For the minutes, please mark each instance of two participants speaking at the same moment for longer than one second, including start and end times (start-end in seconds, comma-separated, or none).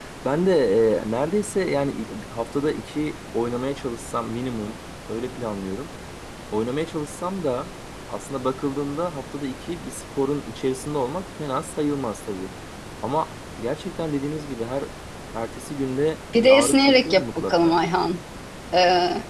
16.4-17.8